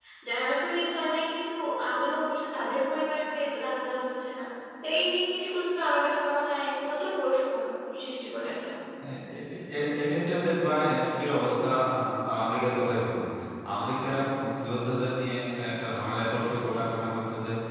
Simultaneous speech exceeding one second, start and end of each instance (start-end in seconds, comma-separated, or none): none